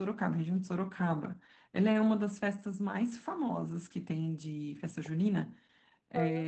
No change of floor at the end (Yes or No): Yes